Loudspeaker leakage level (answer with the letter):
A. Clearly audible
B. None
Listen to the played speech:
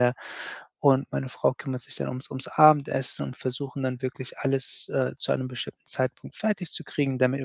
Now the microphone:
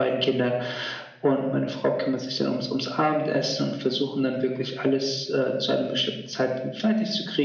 A